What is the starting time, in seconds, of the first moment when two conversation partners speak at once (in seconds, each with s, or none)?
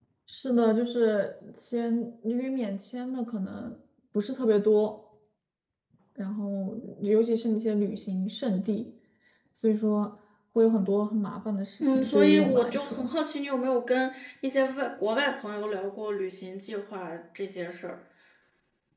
11.8 s